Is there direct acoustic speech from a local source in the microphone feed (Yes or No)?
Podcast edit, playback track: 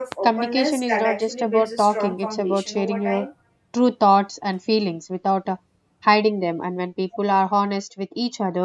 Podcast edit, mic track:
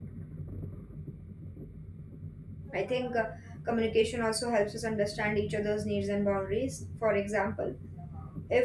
Yes